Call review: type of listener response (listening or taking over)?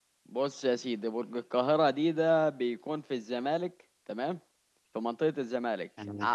listening